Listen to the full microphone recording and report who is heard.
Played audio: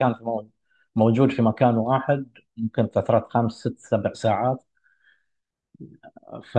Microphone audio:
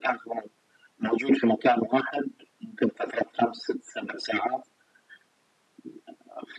echo only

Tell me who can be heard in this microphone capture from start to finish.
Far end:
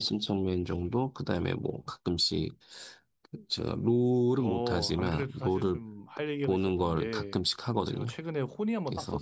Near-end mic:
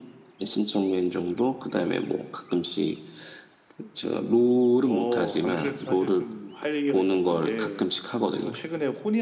echo only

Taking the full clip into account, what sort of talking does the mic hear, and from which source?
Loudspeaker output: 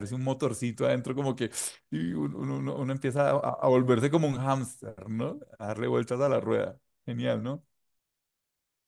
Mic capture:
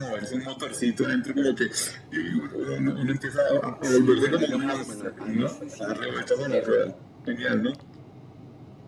both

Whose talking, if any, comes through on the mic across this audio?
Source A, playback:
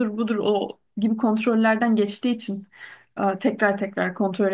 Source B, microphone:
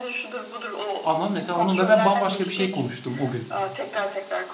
both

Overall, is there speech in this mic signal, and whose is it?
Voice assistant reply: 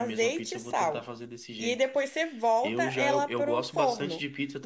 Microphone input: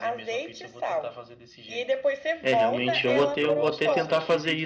both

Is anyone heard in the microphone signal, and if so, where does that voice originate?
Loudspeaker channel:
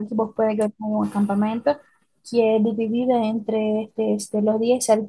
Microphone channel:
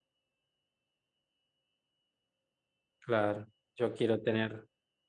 user only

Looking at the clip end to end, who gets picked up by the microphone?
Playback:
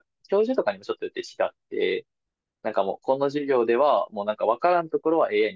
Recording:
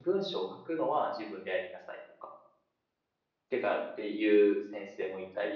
user only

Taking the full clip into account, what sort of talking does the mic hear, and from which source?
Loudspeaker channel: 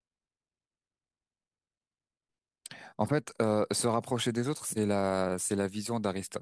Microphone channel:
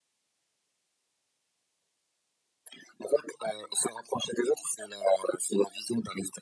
echo only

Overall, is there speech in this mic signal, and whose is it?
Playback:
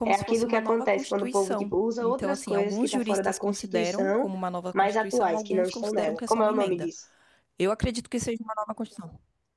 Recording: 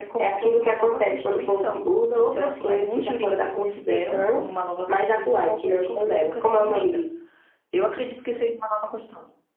echo only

